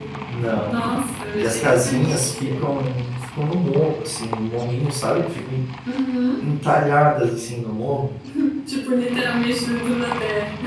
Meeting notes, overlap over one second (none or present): present